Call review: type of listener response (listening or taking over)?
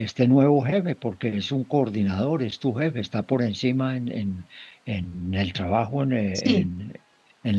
listening